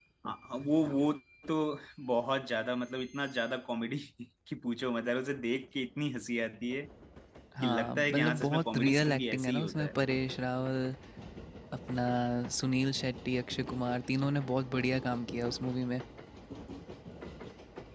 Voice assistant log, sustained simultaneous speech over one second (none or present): present